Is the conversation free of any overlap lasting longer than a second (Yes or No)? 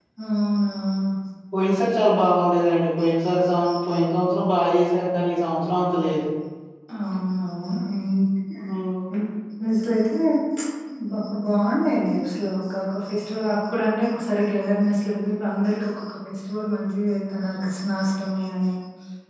Yes